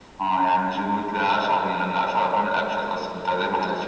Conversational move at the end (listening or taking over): taking over